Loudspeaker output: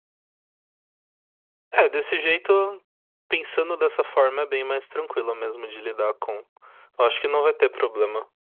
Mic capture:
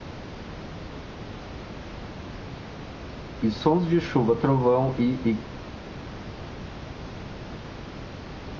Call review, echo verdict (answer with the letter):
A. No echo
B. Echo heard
A